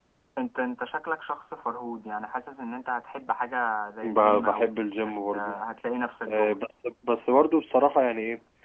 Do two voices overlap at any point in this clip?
Yes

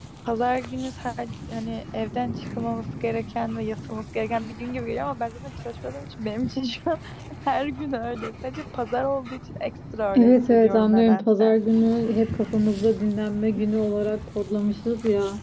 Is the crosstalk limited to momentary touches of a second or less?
No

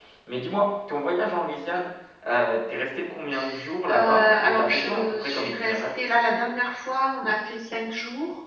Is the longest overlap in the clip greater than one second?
Yes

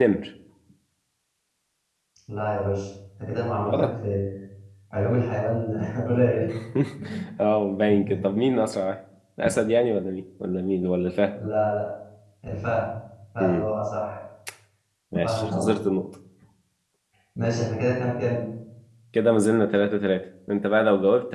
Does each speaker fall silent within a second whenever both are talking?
Yes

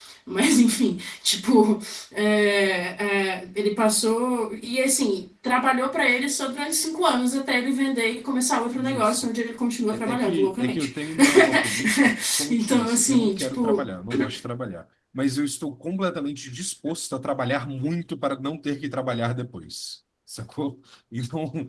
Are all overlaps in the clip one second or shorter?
No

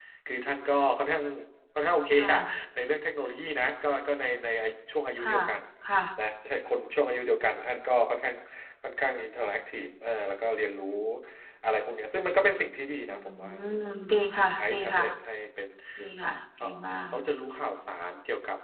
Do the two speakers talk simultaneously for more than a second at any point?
No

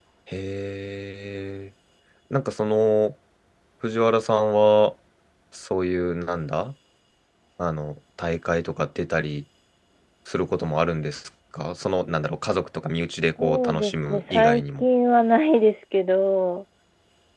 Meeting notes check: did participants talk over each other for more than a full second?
Yes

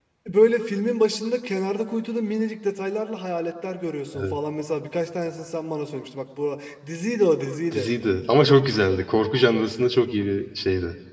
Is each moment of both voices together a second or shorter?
Yes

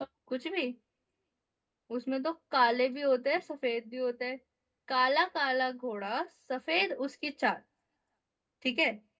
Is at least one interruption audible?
No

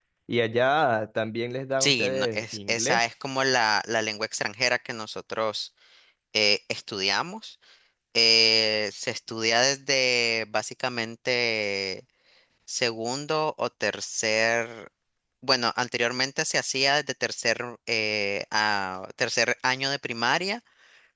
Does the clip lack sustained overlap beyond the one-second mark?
No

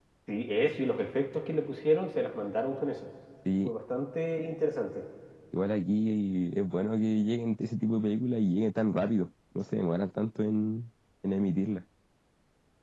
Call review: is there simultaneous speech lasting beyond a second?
No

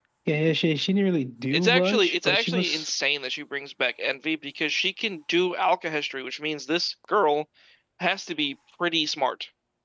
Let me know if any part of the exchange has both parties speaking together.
Yes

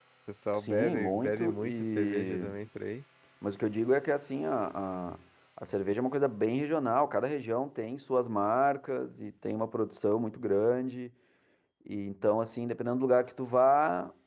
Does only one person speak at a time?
No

